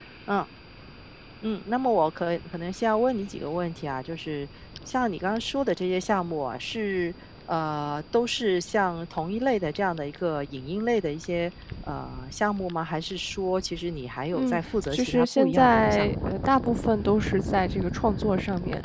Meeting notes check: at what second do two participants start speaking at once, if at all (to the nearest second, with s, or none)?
14 s